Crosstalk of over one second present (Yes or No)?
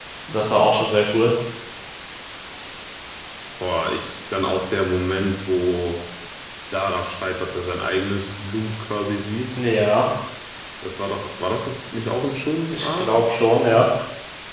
No